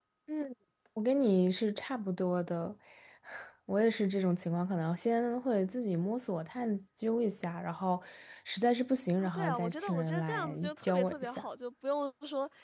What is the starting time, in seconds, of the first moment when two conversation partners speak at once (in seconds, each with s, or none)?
9.2 s